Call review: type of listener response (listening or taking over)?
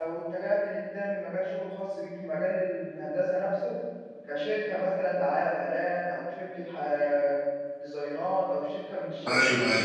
taking over